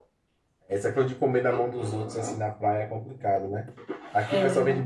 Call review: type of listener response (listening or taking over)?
listening